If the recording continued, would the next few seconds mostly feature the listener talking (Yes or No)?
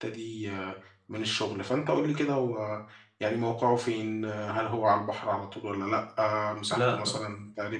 No